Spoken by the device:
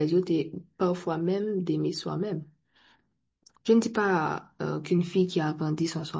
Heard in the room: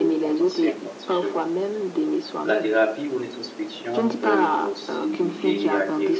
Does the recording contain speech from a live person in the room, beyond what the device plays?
Yes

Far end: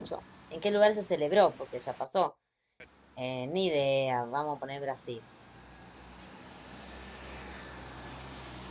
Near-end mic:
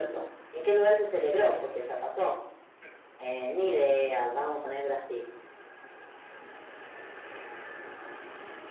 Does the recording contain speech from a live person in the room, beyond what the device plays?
No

